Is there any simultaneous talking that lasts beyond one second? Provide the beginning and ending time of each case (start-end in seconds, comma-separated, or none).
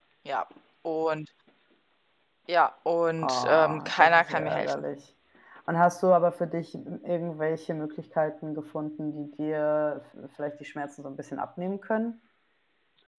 3.2-4.8